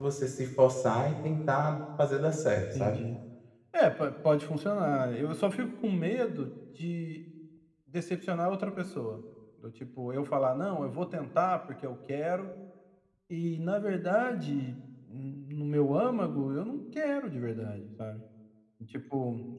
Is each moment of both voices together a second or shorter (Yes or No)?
Yes